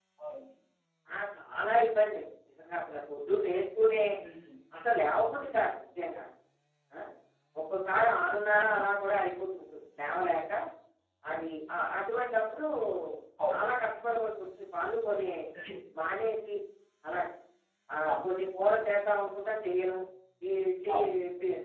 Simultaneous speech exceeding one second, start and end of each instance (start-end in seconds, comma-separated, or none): none